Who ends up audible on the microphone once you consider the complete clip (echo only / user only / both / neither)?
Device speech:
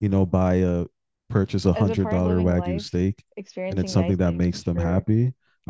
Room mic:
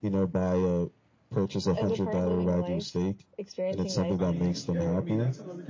both